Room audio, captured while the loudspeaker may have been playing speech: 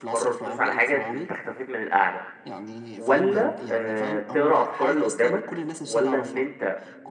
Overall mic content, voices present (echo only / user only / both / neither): both